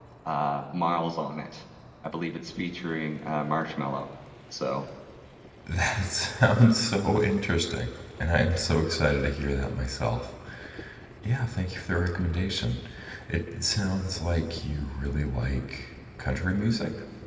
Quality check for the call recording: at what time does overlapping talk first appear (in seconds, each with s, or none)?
none